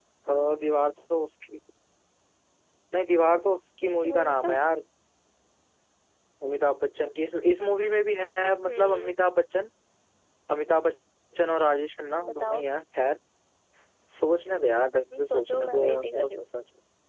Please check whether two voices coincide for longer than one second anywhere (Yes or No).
Yes